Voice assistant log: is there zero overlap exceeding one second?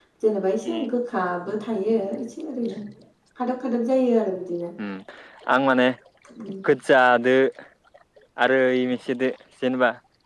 Yes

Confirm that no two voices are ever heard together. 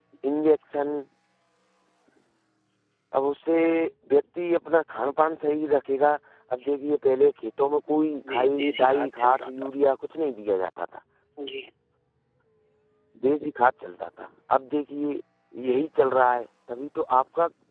No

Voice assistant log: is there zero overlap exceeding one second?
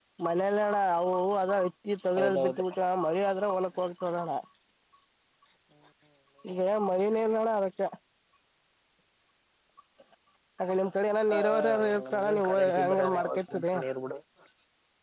No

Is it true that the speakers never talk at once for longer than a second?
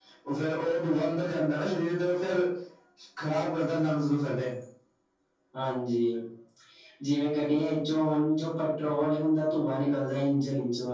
Yes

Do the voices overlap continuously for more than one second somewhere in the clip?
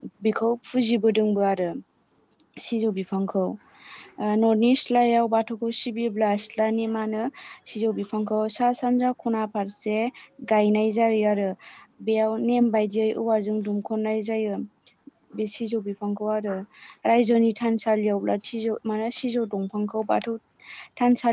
No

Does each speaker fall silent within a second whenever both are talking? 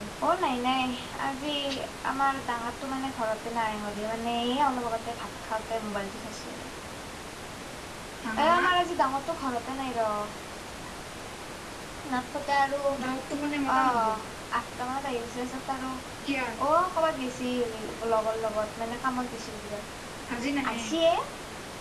Yes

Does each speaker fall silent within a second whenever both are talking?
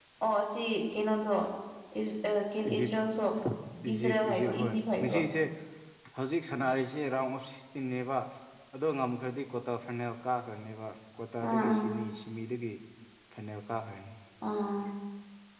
No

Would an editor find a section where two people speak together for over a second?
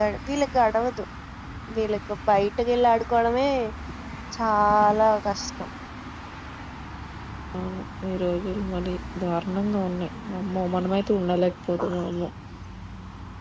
No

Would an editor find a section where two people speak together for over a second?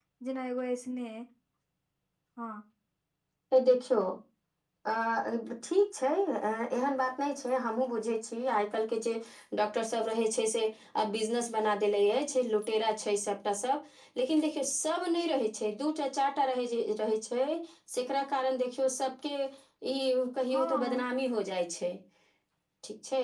No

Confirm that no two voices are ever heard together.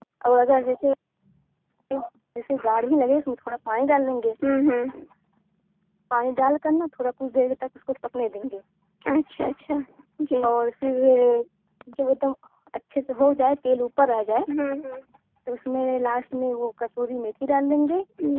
Yes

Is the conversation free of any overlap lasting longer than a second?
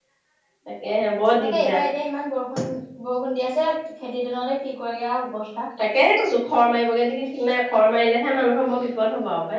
Yes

